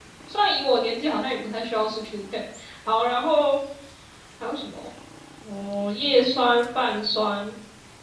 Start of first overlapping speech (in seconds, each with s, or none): none